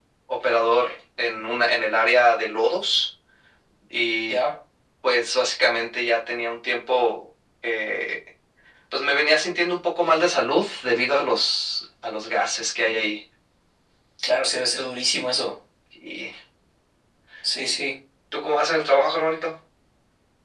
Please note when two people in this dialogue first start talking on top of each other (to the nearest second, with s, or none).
none